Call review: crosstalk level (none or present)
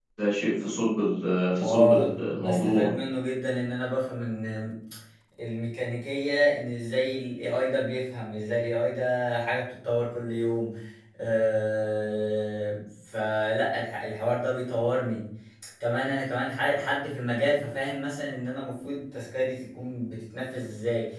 present